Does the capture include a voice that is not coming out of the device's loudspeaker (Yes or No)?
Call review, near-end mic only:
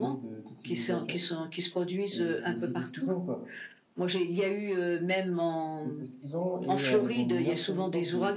Yes